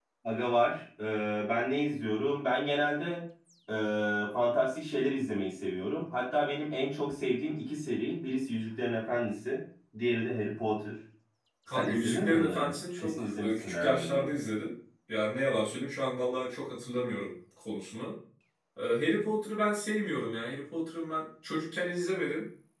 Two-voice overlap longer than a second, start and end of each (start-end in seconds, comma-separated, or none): 11.7-14.3